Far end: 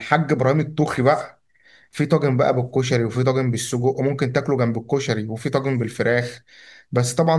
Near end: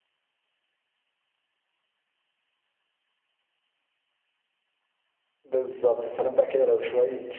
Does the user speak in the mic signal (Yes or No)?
Yes